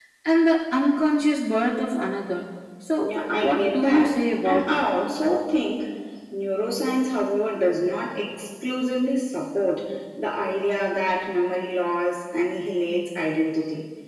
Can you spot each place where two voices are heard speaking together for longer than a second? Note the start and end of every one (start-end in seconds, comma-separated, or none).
3.0-4.8